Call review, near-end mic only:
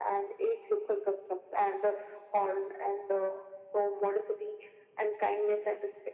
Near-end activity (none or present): none